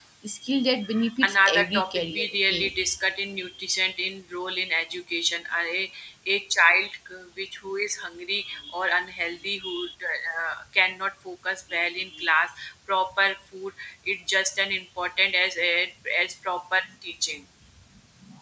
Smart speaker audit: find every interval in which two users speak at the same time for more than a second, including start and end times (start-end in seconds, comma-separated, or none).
1.3-2.7